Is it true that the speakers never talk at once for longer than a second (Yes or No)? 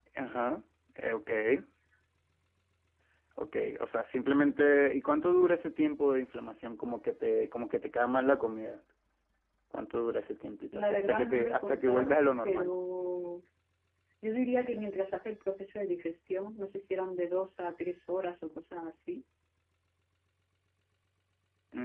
No